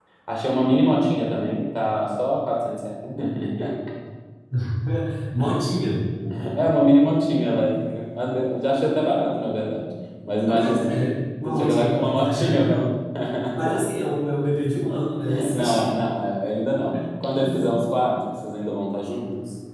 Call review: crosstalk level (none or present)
present